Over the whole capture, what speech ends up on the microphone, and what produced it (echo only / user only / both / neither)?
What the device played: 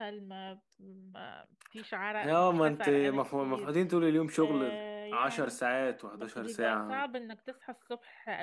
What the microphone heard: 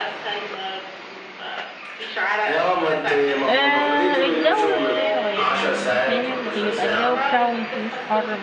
both